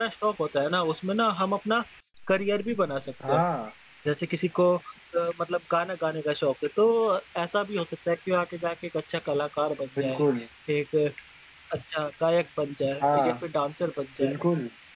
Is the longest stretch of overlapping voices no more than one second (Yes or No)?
Yes